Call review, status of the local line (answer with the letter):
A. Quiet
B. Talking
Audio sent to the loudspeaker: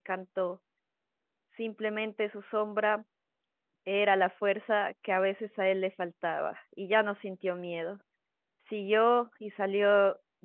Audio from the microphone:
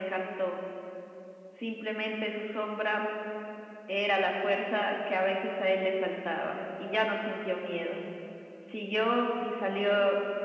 A